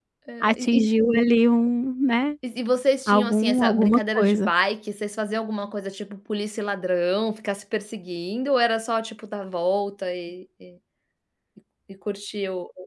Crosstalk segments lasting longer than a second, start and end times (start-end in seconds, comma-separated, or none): 3.1-4.5